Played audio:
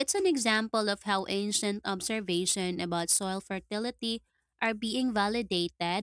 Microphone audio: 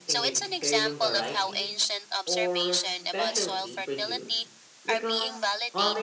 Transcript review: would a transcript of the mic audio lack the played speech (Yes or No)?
No